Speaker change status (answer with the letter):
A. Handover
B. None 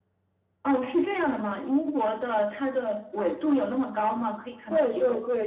A